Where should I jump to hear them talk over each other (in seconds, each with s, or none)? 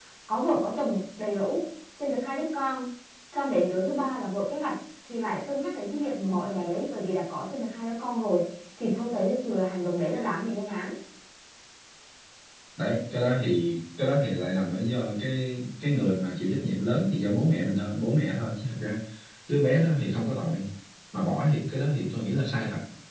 none